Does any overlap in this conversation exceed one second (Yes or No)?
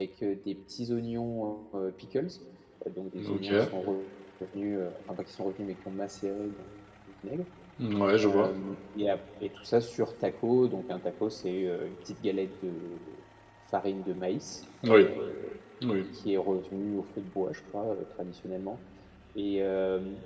No